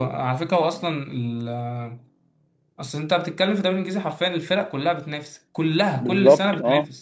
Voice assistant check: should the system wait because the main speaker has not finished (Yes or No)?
No